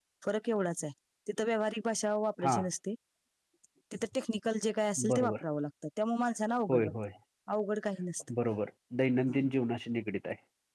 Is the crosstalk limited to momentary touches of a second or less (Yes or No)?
Yes